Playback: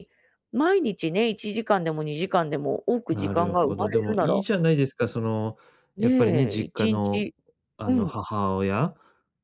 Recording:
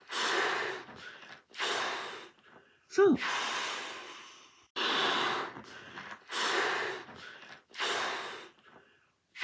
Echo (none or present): none